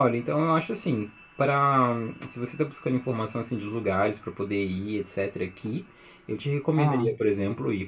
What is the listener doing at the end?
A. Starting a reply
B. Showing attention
B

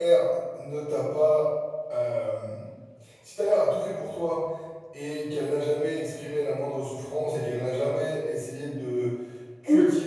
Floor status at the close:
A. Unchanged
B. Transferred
A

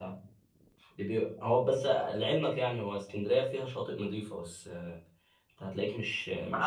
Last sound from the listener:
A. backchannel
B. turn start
B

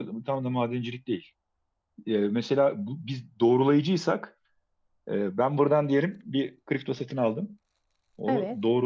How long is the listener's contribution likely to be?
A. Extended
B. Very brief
B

